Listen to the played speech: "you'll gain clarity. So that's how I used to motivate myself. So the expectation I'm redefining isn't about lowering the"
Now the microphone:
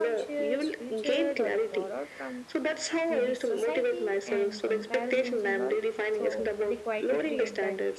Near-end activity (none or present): present